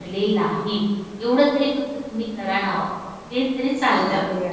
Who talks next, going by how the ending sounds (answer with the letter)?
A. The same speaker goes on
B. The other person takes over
B